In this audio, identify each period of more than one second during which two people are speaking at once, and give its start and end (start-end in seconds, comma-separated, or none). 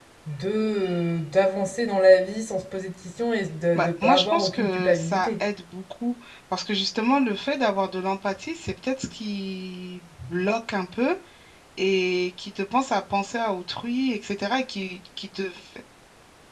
3.8-5.4